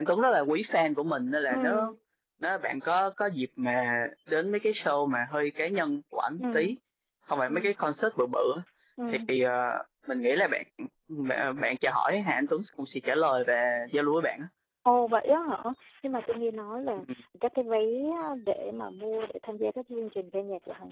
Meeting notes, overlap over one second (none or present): none